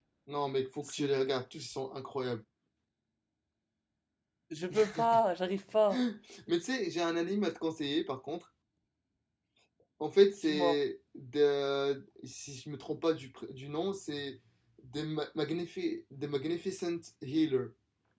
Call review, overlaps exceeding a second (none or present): none